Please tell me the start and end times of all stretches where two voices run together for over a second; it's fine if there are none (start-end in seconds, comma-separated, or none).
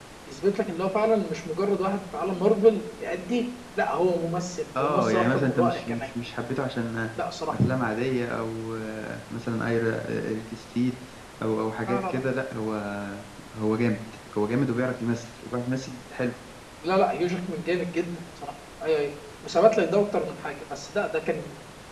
4.8-6.1